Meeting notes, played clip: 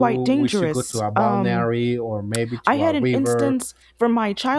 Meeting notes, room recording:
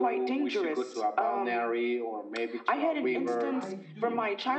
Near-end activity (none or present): present